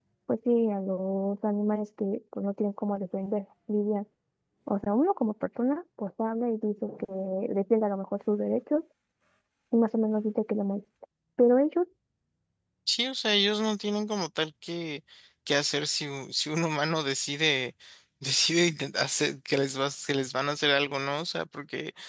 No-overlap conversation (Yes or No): Yes